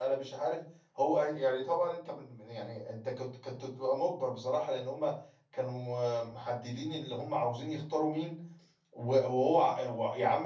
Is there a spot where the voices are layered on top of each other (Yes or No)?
No